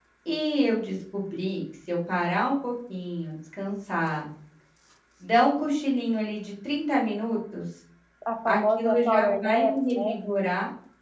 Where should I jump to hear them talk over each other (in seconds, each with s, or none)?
8.5 s